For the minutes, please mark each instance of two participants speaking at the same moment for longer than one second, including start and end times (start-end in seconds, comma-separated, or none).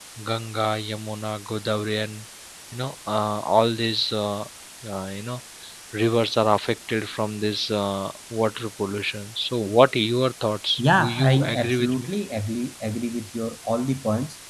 10.8-12.1